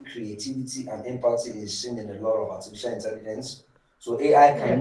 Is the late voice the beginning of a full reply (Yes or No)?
No